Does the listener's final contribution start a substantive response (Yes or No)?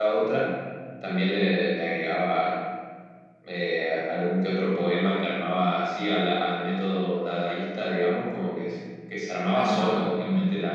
No